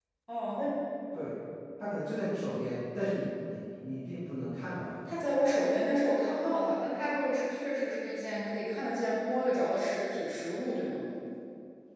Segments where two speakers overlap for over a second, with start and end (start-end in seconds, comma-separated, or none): none